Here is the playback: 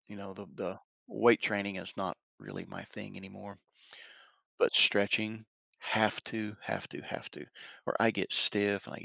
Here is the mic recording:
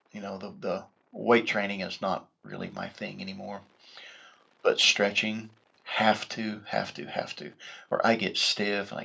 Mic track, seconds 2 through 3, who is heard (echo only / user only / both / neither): echo only